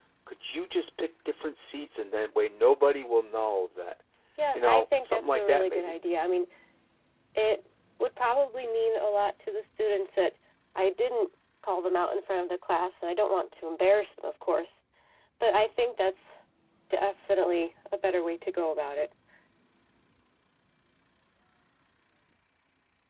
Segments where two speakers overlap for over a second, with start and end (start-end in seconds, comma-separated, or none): 4.5-6.0